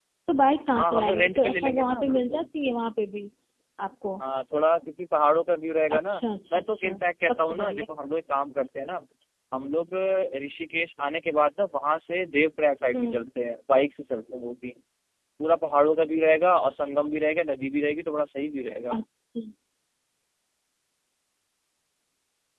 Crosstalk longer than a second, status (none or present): present